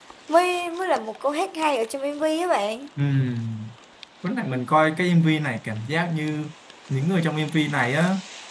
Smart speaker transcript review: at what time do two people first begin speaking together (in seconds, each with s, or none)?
none